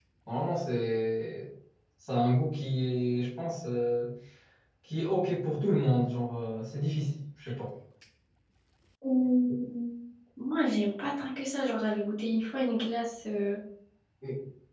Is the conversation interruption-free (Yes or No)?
Yes